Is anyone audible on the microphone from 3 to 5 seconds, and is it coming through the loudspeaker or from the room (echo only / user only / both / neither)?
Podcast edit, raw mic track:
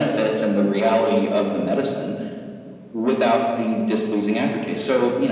echo only